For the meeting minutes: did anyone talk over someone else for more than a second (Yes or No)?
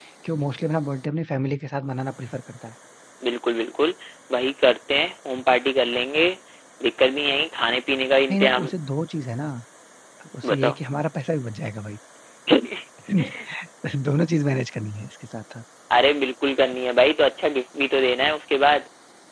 No